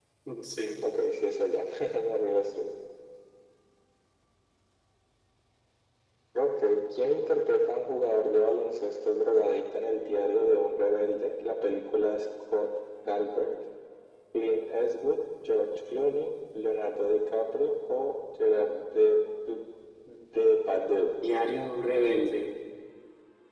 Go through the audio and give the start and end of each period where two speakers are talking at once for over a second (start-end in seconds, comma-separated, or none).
none